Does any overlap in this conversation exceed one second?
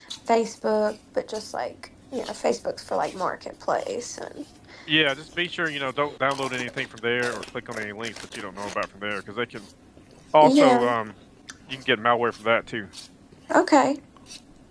No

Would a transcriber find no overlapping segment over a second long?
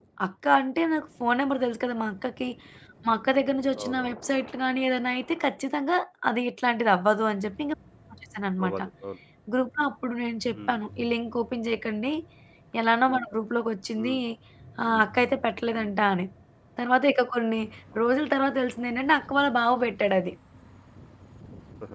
Yes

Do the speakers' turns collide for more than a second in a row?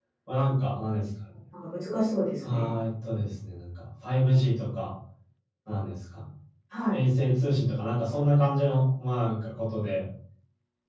No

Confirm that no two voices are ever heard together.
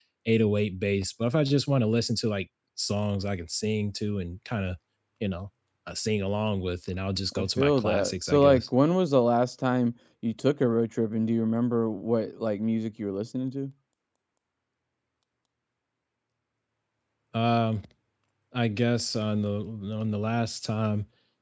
No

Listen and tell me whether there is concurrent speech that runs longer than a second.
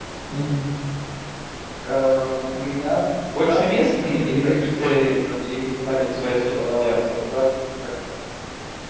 Yes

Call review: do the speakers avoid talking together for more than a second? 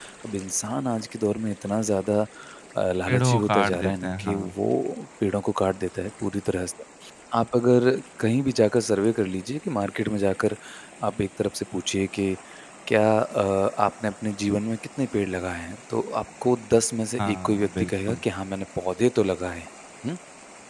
No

